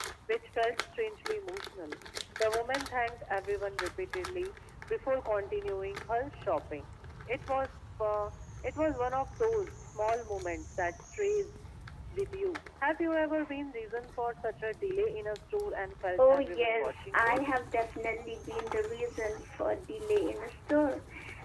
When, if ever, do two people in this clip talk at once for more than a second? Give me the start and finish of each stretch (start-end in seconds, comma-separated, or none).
16.2-17.4